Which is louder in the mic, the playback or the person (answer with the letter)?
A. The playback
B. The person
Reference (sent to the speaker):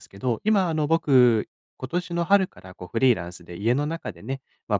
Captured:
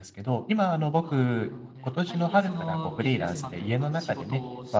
A